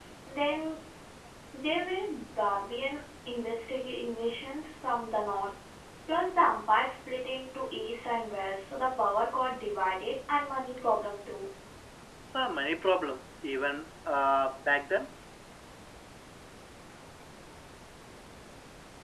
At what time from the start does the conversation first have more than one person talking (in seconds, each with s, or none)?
none